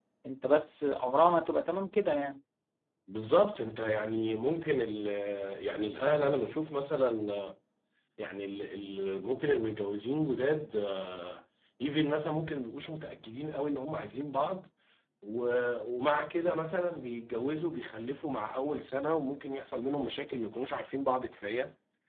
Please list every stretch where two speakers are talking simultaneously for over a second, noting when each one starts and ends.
none

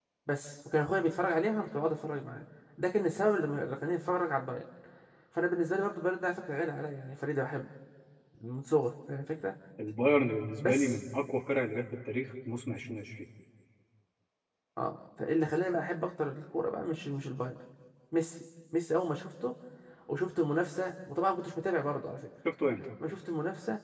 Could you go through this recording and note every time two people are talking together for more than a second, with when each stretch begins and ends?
none

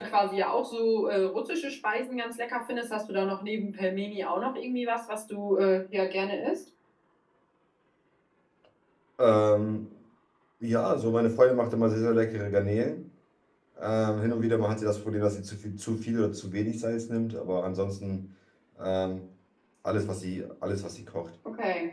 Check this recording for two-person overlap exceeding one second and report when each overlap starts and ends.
none

